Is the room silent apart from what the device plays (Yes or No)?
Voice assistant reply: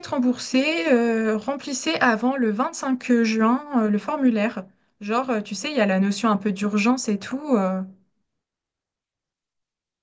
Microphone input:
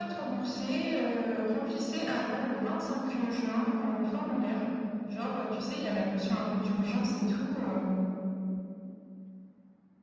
Yes